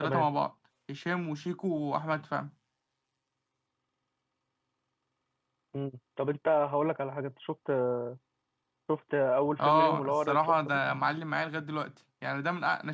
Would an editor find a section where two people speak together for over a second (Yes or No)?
Yes